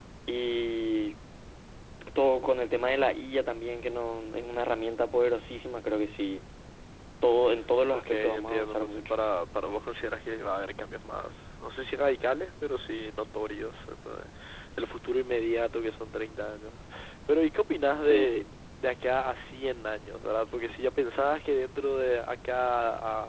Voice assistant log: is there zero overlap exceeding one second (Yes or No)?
No